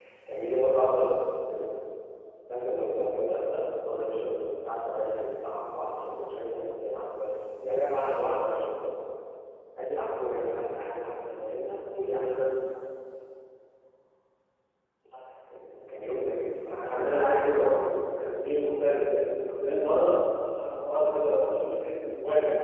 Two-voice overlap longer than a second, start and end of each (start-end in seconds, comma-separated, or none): 16.7-17.9